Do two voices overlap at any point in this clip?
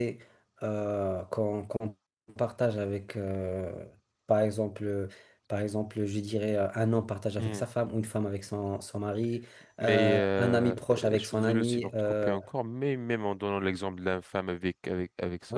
Yes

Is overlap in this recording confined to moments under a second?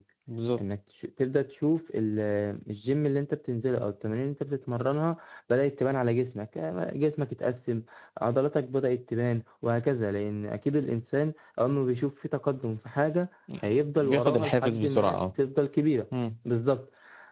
No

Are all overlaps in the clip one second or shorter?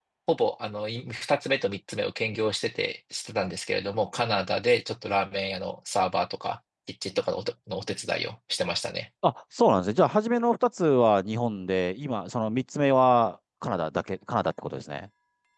Yes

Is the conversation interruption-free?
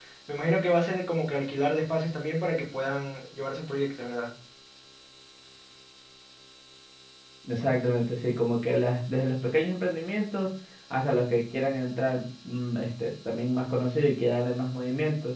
Yes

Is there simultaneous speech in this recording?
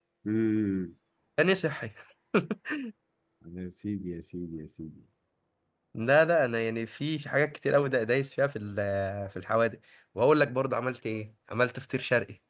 No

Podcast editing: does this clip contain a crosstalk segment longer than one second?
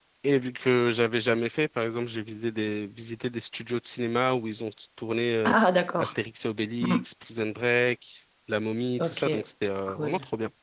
No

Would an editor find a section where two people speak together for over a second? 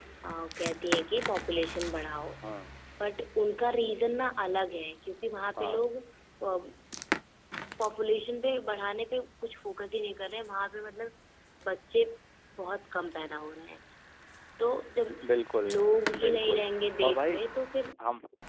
No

